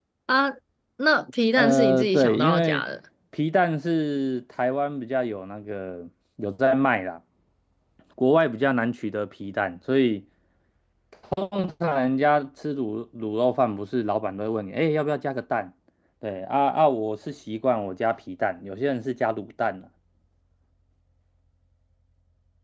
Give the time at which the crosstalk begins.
1.6 s

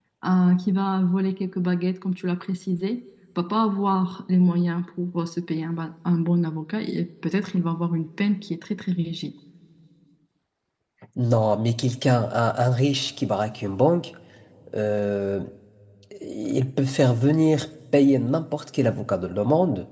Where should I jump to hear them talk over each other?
none

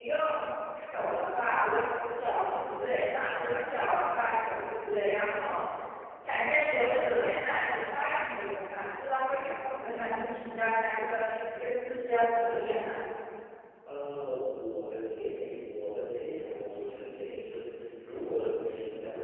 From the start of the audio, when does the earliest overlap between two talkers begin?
none

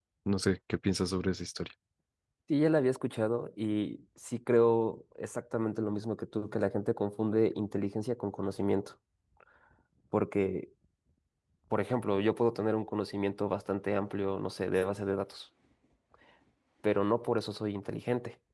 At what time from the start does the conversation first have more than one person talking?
none

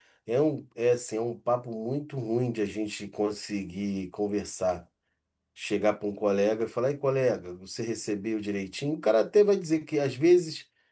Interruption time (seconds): none

